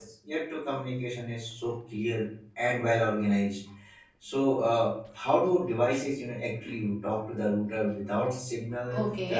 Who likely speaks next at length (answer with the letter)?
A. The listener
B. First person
A